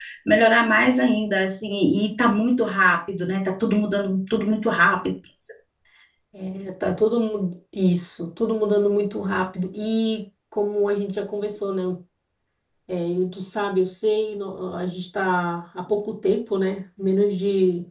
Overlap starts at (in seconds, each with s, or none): none